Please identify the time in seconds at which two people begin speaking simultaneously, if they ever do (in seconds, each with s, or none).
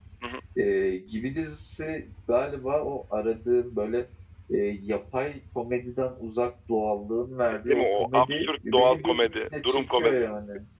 7.7 s